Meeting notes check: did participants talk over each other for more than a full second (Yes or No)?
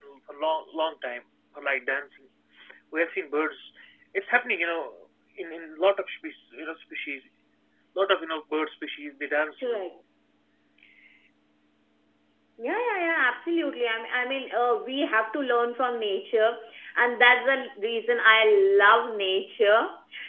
No